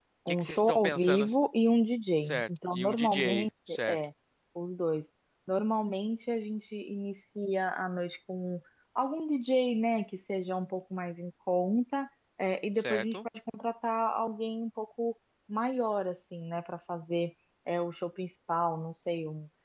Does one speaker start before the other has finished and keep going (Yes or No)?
Yes